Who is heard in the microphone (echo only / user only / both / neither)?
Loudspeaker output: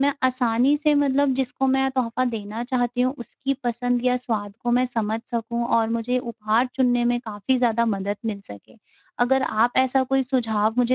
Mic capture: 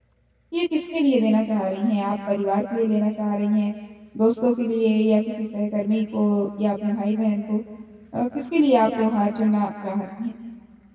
user only